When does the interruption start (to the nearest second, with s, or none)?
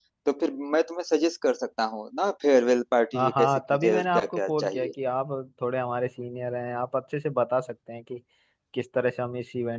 3 s